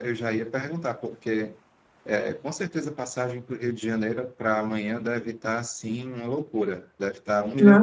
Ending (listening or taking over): taking over